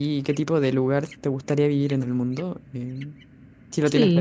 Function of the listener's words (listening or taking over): taking over